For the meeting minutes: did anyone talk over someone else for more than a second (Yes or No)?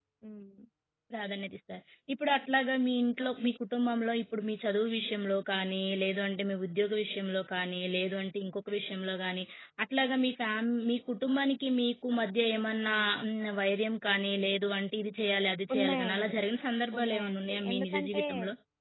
Yes